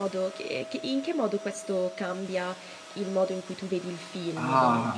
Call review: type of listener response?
taking over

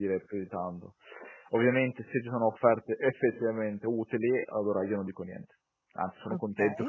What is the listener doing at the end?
listening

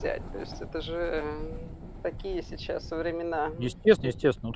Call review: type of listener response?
taking over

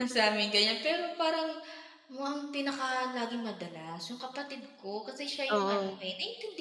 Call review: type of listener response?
listening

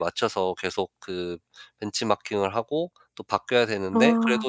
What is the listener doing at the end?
listening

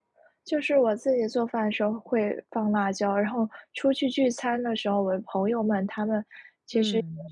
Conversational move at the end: listening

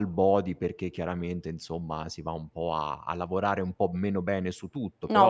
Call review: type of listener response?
taking over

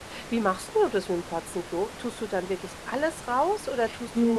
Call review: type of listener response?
taking over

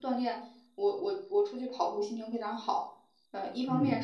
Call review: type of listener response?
listening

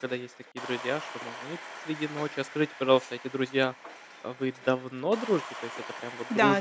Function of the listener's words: taking over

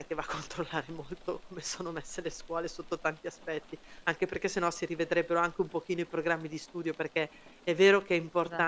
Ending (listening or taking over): listening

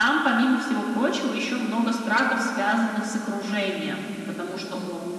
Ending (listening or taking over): listening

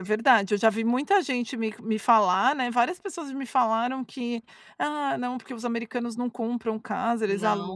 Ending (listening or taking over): taking over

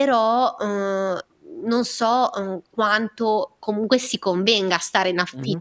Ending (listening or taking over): listening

